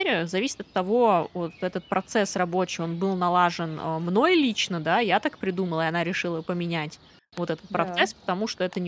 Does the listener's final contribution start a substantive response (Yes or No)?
No